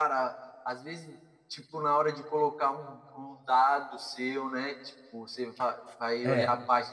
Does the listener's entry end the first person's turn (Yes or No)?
No